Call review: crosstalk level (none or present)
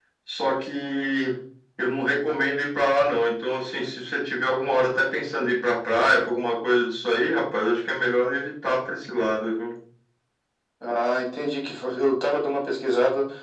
none